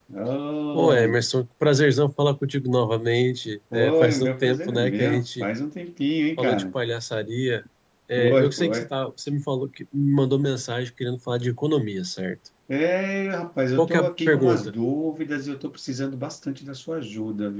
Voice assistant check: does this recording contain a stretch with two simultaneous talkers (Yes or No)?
Yes